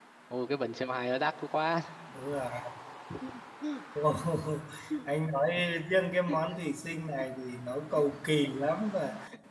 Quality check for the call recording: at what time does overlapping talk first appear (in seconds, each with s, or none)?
none